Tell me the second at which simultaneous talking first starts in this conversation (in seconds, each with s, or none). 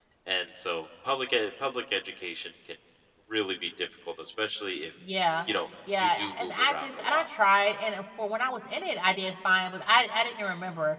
6.0 s